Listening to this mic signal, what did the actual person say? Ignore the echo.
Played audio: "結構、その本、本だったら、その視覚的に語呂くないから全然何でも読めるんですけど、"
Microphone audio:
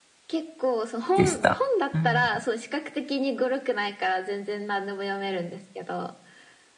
でした。うん。

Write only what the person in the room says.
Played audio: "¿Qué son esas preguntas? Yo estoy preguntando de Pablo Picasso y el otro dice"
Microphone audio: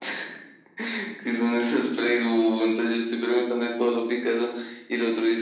none

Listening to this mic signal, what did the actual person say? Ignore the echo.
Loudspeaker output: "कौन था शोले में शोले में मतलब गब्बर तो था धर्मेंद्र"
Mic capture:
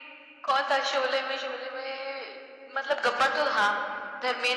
none

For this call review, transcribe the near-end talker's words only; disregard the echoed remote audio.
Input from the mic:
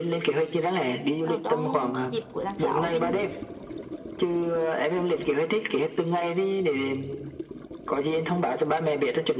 ở trong dịp của tháng 6 mình

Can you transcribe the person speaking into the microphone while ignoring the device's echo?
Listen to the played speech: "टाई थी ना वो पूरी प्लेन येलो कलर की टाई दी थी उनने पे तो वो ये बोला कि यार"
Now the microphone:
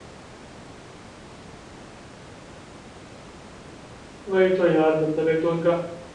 वही तो यार मतलब एक तो उनका

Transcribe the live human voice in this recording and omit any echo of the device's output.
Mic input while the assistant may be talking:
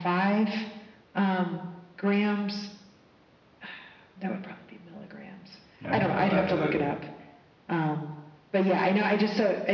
All right, I'll have to

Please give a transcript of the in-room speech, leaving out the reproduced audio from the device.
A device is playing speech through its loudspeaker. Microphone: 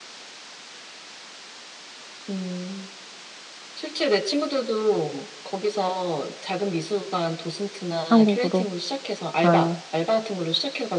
한국으로. 아,

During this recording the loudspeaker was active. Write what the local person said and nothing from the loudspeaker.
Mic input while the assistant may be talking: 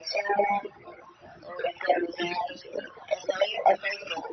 none

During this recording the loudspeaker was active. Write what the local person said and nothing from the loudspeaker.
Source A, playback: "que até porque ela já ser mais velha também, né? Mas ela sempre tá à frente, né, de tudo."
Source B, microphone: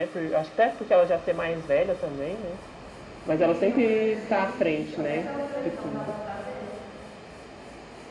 Sim, eu percebi isso. Até pela televisão dava para ver

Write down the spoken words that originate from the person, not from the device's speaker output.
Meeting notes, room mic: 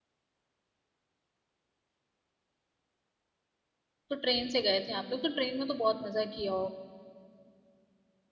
तो ट्रेन से गए थे आप लोग तो ट्रेन में तो बहुत मजा किया हो

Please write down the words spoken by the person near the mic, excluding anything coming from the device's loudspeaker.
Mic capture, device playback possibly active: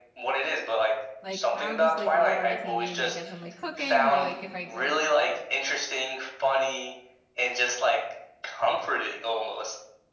Like I'll just like leave it on my TV like as I'm like cooking or like if I like

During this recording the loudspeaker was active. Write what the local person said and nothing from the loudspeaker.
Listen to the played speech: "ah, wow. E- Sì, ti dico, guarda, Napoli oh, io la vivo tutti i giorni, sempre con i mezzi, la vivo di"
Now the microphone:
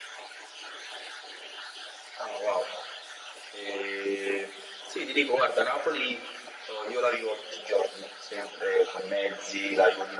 none

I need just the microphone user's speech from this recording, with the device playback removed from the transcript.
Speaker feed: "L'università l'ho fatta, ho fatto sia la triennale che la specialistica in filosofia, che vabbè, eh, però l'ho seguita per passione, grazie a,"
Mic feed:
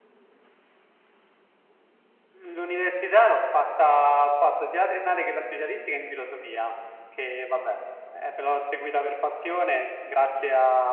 none

